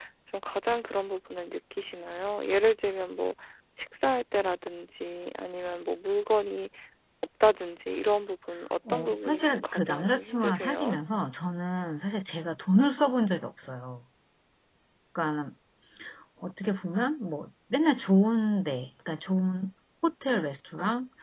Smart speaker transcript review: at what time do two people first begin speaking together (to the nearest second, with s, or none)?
9 s